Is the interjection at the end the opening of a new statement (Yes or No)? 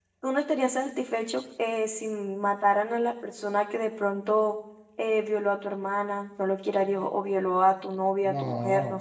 Yes